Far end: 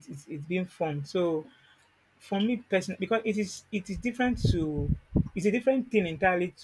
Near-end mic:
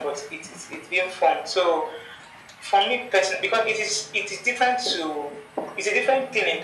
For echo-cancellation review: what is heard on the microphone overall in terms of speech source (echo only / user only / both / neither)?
echo only